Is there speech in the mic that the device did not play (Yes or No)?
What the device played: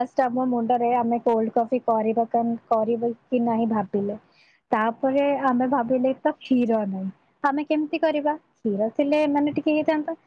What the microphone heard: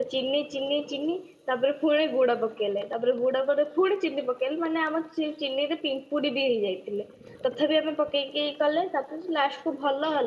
Yes